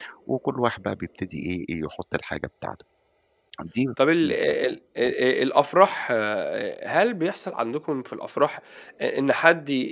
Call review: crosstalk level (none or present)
none